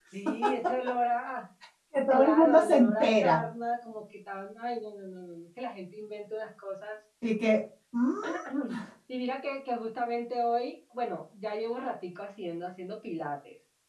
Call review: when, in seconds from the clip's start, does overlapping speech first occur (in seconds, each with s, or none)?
2.1 s